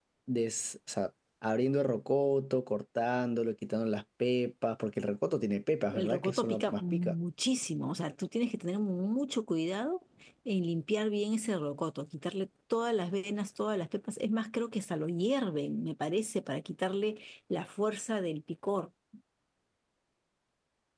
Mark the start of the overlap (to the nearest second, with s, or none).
6 s